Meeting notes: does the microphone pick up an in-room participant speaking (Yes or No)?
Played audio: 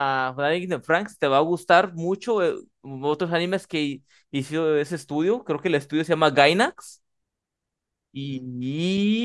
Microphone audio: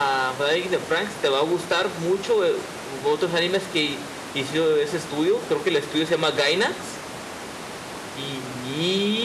No